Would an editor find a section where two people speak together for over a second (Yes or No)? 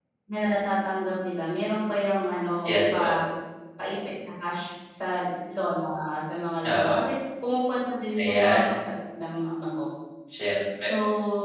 No